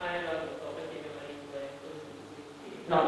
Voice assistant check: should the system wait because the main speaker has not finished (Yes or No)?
No